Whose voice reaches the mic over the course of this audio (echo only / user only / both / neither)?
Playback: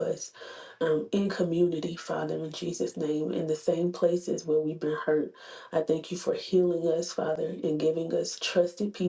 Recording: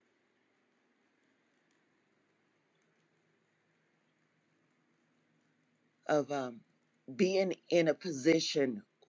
user only